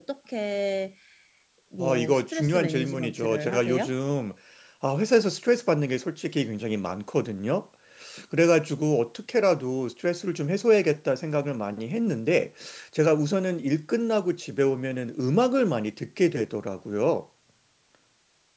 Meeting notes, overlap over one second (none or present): present